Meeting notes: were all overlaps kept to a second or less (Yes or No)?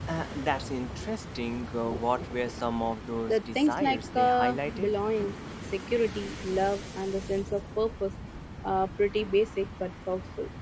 No